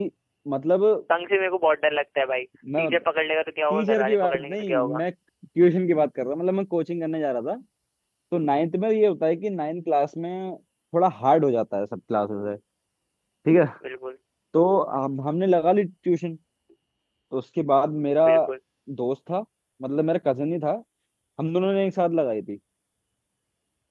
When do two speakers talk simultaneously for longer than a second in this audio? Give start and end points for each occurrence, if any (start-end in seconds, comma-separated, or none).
3.7-5.0